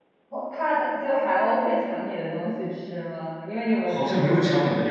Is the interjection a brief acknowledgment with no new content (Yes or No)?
No